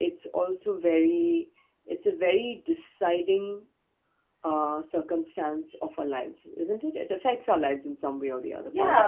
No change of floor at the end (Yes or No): No